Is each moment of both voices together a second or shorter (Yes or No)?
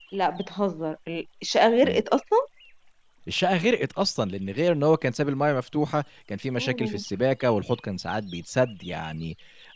Yes